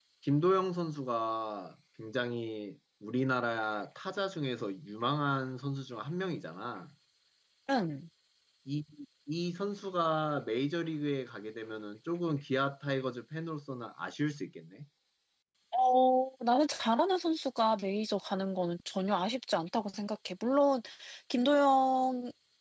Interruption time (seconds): none

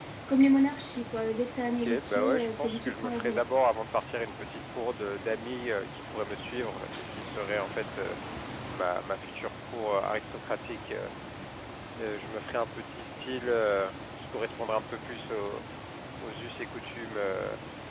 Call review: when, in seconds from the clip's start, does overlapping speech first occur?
1.6 s

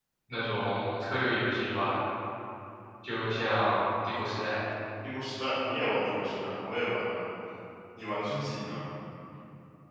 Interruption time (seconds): none

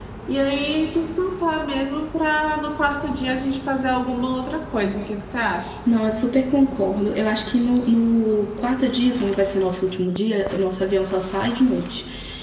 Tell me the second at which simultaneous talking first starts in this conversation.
none

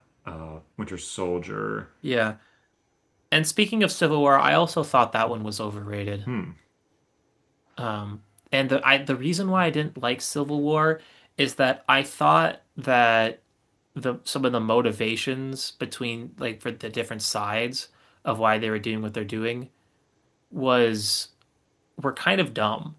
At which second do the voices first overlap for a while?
none

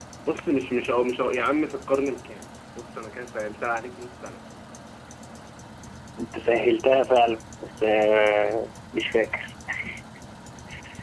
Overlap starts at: none

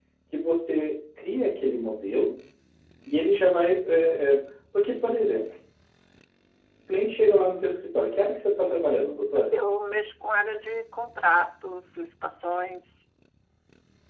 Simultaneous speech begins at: none

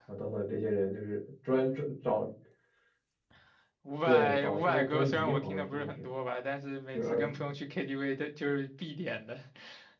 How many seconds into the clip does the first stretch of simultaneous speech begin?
4.0 s

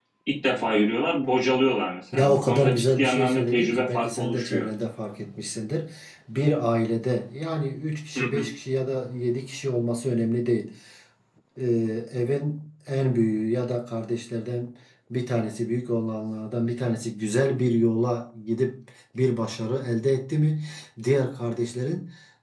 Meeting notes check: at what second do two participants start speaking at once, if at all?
2.1 s

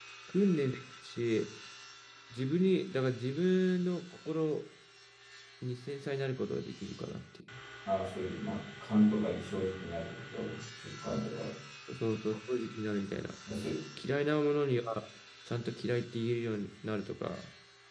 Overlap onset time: none

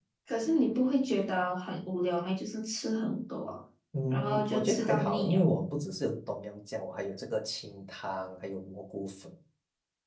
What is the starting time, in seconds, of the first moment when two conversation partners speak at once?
4.1 s

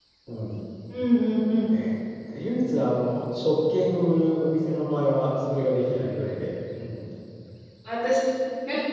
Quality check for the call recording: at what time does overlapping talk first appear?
none

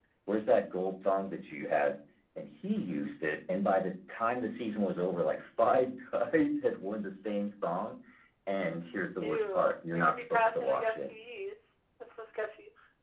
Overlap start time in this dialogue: 9.2 s

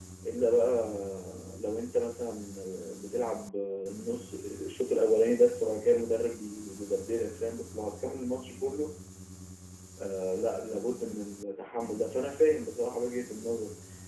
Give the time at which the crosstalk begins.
none

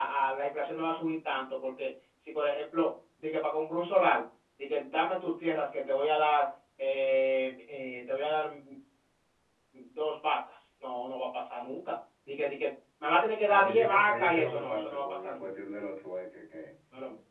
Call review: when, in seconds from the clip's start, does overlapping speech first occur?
13.5 s

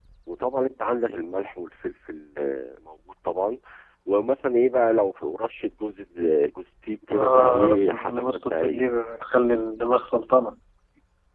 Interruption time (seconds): 7.1 s

